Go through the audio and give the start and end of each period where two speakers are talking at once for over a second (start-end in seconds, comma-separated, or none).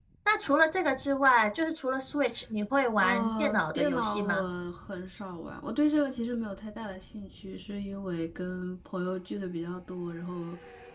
3.0-4.4